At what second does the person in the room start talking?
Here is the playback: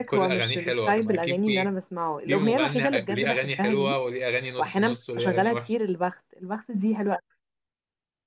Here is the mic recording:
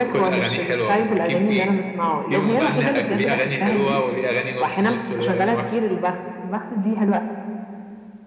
none

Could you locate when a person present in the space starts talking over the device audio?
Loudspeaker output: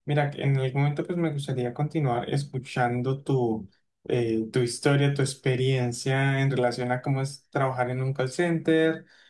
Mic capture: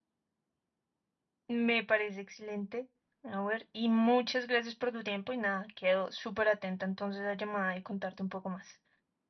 1 s

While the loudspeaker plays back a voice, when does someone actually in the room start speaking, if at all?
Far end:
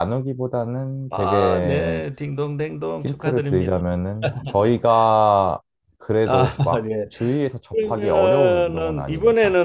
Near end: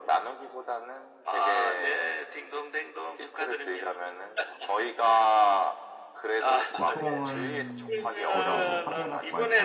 7 s

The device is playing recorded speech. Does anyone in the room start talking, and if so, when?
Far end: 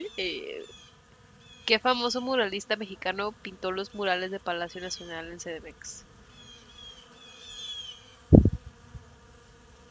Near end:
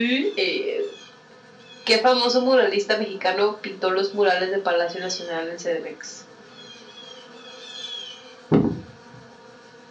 none

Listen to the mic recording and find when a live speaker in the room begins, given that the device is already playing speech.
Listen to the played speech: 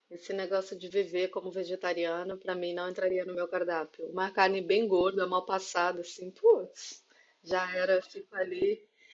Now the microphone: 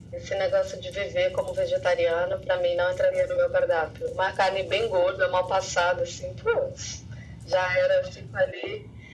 none

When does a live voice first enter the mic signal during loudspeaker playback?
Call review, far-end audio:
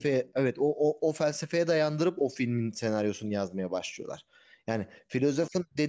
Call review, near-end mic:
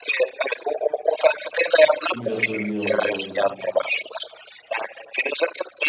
2 s

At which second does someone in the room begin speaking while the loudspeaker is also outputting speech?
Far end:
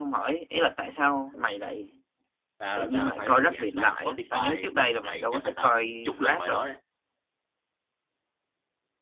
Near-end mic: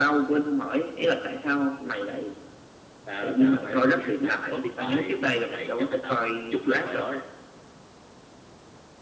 none

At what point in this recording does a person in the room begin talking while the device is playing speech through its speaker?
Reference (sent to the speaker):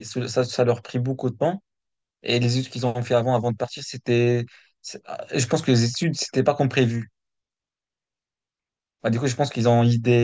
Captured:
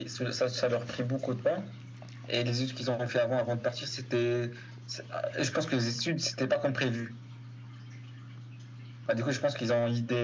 none

